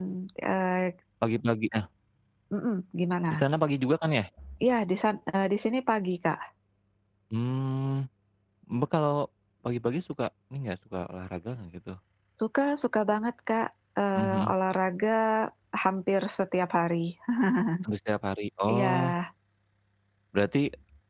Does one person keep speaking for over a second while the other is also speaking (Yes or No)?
No